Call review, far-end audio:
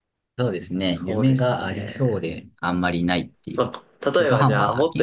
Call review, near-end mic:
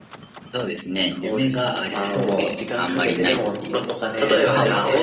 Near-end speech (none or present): present